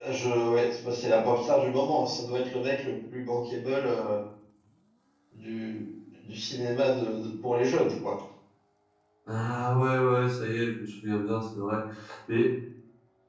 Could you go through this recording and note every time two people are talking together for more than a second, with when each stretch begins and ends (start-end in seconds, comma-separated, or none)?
none